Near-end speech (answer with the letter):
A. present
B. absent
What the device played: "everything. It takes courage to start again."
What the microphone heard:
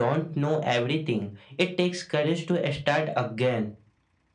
B